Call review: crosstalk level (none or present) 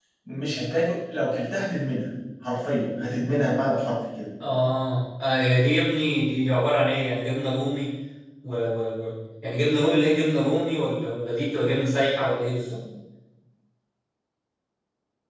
none